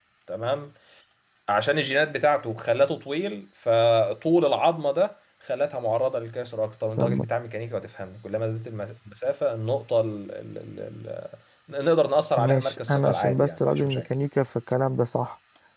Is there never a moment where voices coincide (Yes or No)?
No